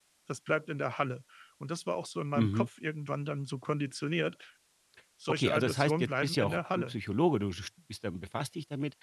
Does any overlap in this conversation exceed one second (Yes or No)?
Yes